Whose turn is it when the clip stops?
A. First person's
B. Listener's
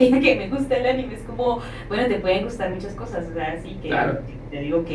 A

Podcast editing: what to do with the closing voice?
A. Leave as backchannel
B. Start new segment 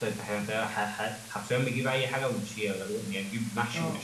B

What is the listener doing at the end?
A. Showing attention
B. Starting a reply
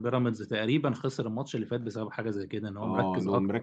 B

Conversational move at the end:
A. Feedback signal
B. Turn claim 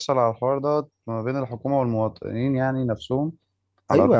B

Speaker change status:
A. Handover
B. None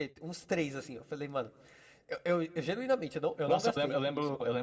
A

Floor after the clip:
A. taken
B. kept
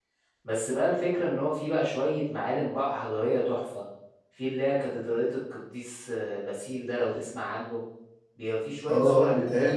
A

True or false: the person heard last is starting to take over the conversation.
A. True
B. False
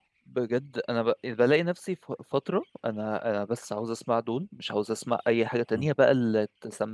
B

